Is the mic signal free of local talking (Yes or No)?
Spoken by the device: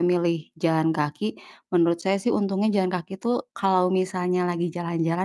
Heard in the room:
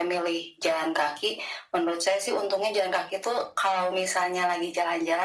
Yes